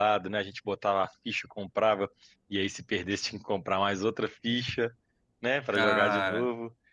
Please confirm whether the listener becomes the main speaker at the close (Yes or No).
No